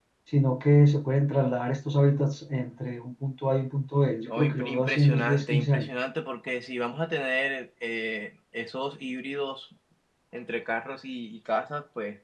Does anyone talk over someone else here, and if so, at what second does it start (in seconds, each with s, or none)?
4.3 s